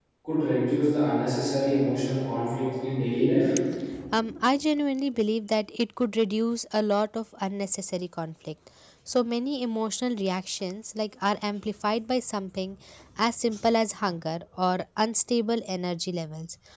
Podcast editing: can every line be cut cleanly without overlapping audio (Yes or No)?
Yes